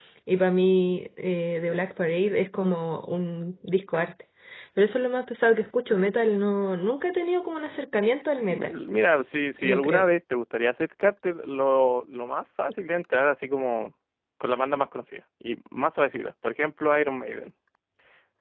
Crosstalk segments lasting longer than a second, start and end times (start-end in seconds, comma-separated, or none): none